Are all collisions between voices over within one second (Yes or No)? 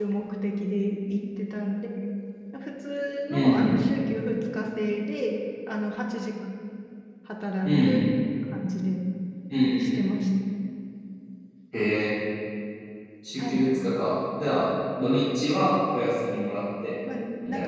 Yes